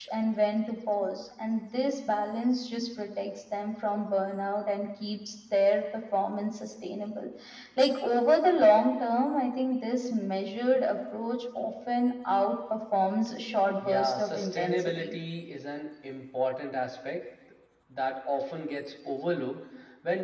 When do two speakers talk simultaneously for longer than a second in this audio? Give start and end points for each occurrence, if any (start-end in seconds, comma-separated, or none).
13.8-15.1